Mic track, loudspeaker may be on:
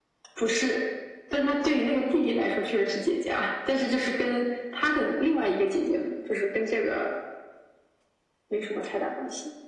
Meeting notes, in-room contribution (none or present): none